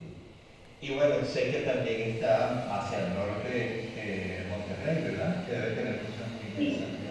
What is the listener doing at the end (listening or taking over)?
taking over